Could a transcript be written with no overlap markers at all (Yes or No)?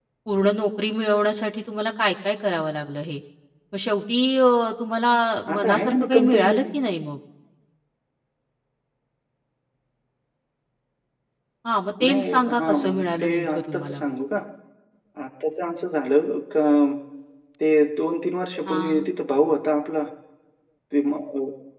No